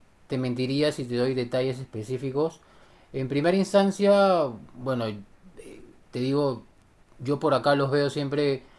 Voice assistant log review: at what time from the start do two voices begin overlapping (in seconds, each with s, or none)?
none